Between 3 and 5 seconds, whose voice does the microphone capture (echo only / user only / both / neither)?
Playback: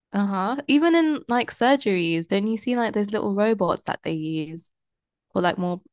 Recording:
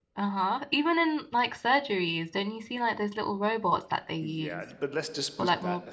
both